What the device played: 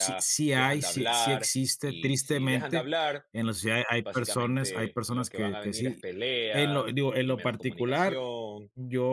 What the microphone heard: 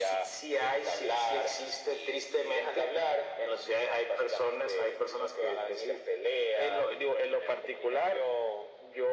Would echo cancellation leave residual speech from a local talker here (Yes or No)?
No